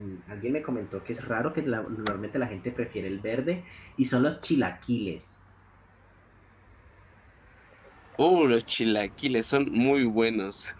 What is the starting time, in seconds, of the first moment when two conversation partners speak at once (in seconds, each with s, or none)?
none